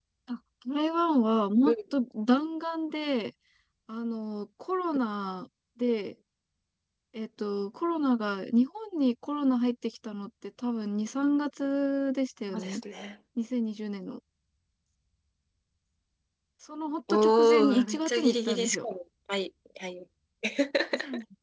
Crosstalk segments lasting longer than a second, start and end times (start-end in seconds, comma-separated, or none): 17.1-18.9